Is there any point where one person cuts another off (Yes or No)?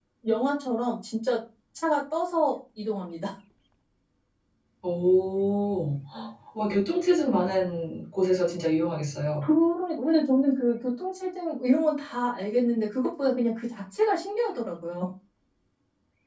No